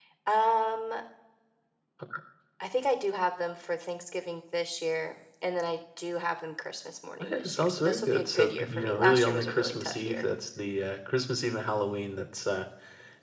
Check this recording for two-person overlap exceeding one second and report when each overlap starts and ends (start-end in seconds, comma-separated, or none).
7.2-10.3